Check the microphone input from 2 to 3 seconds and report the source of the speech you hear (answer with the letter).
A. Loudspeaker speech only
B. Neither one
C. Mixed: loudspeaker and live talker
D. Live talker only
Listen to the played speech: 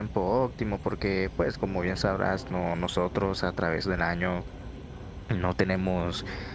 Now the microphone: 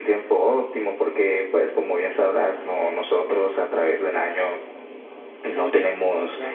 A